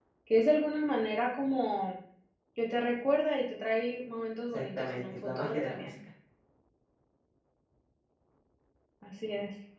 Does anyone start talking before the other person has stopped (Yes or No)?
Yes